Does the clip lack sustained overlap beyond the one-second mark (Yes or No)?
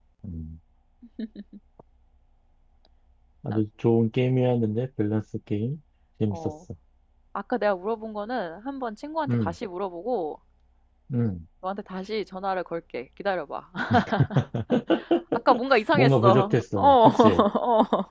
No